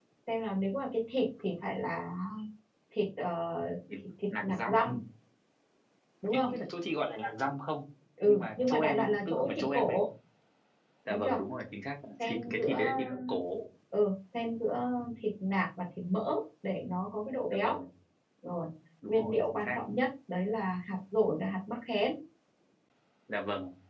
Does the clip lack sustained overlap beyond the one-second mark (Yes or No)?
No